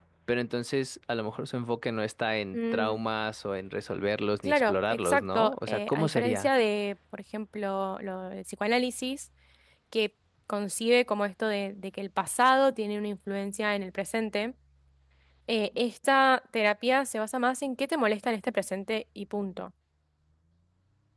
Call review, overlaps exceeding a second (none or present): present